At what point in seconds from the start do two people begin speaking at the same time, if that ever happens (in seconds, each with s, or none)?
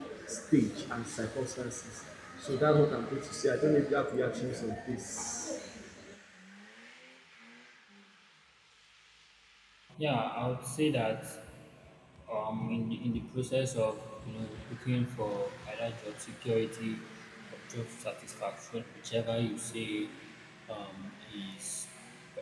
none